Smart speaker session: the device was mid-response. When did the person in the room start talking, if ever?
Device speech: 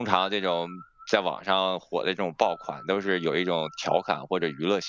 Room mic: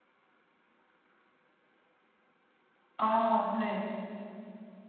3.0 s

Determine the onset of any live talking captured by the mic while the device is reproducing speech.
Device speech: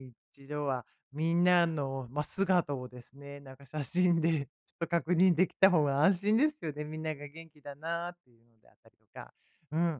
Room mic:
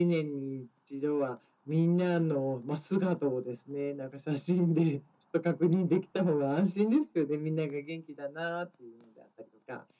none

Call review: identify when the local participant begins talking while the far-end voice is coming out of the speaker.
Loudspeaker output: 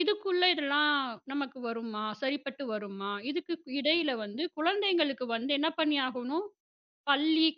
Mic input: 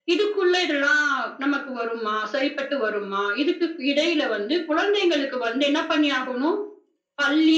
none

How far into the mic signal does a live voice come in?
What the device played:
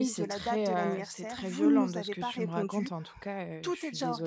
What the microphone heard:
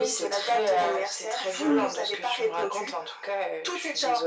none

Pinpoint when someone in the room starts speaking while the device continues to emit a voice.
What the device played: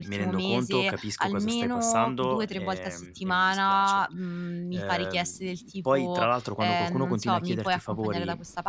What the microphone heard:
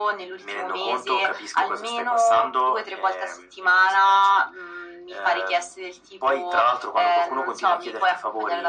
none

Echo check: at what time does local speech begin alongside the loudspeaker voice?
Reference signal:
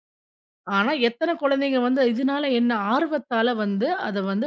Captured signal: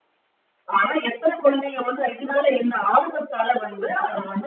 none

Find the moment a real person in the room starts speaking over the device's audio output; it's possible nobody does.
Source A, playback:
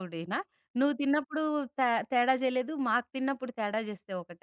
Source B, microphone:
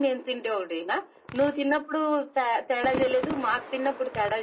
none

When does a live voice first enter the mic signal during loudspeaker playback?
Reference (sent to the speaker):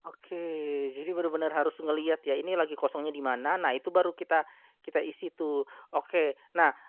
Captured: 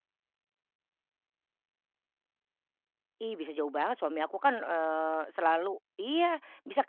3.2 s

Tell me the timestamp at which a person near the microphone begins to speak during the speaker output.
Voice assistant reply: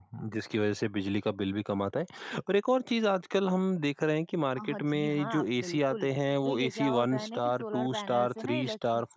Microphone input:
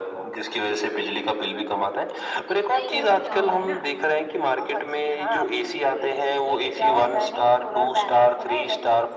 2.5 s

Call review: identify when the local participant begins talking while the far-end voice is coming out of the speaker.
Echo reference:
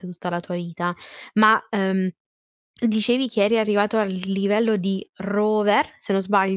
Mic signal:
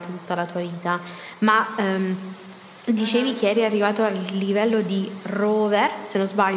3.0 s

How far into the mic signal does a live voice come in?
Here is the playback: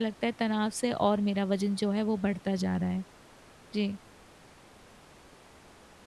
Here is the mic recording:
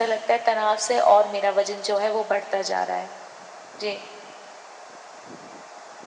none

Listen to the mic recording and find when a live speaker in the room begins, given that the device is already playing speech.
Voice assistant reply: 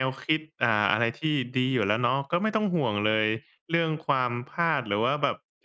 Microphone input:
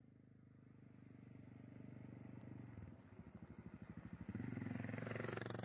none

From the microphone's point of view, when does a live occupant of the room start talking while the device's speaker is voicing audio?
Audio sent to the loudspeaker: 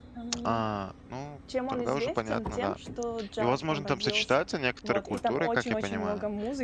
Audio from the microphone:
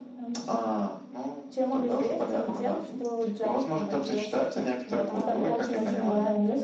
5.0 s

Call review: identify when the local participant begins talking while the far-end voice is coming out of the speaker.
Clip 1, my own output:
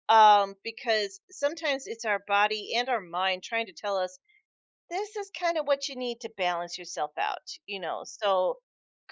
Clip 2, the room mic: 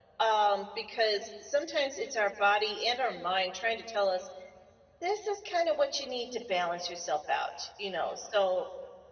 none

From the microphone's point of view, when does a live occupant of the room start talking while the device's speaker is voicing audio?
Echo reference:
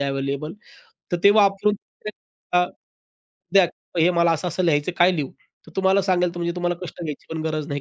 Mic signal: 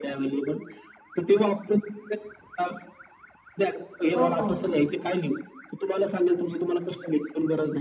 4.2 s

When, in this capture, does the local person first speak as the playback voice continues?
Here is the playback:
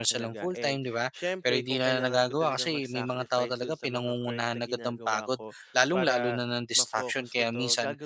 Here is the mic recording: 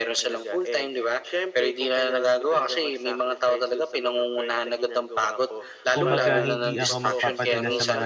5.9 s

